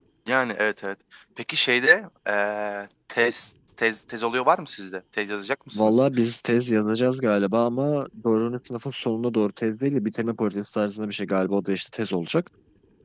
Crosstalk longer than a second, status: none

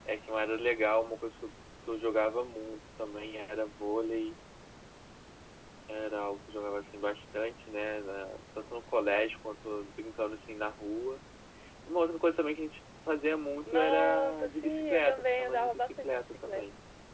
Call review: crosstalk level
present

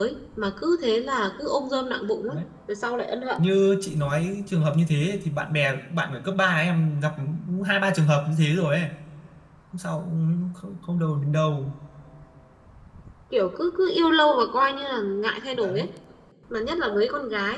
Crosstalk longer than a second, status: none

